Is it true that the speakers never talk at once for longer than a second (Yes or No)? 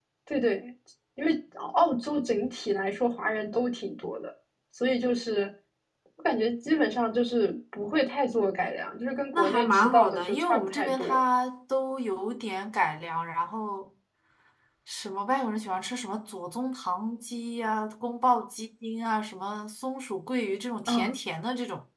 No